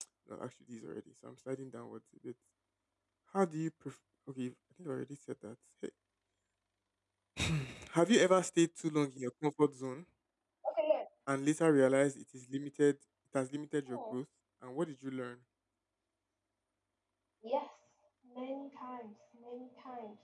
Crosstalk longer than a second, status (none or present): none